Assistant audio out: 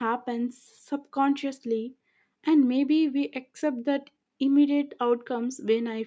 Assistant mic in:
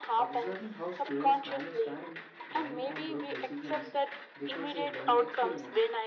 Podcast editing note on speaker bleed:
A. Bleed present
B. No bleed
A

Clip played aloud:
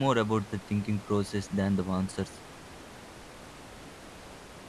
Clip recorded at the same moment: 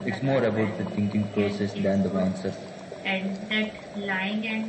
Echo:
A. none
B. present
B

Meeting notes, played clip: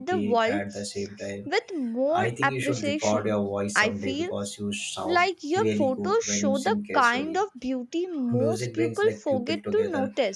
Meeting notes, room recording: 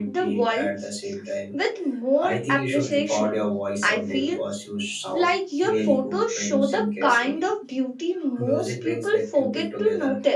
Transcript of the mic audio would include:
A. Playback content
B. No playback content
A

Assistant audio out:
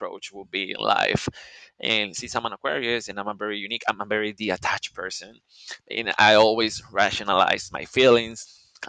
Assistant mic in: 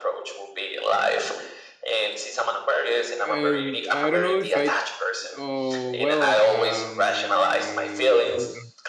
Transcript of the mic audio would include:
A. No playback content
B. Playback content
B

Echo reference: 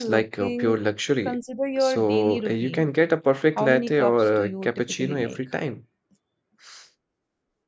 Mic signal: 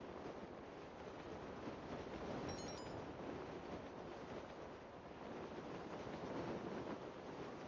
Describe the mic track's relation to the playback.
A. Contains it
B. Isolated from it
B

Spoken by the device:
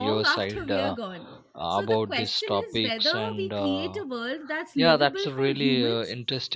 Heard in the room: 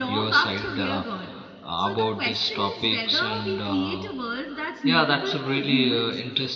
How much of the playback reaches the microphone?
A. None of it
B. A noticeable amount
B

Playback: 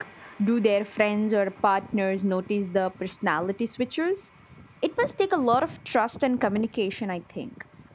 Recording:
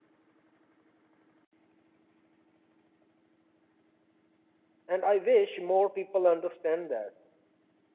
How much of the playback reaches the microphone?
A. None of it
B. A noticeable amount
A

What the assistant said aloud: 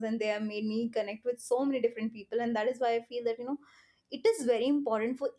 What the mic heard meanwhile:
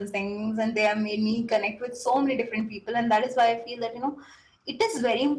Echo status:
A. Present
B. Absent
A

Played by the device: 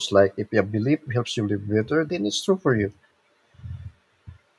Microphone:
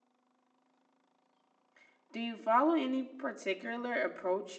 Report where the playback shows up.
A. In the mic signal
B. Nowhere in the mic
B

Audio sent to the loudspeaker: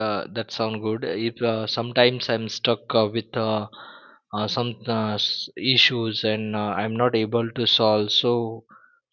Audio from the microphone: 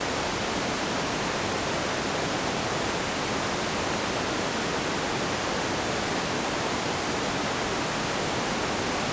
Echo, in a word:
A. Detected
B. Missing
B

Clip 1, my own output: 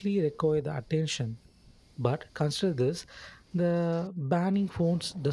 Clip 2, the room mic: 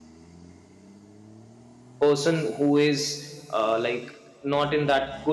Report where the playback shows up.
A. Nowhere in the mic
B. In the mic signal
A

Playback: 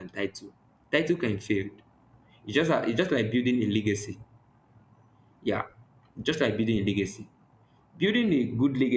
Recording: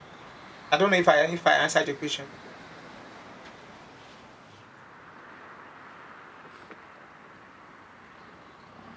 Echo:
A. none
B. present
A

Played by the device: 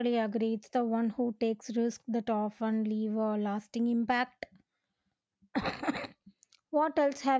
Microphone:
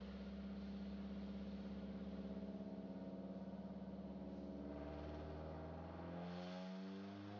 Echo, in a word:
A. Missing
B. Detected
A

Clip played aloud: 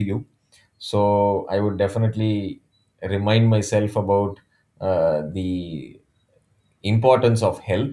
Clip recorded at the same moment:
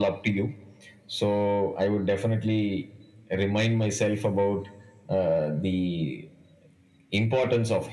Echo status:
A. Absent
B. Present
B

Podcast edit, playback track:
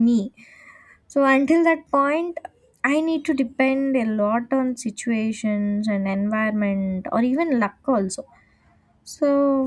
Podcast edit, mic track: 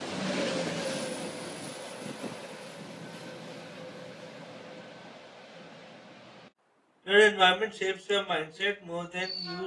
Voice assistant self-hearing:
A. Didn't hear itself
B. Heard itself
A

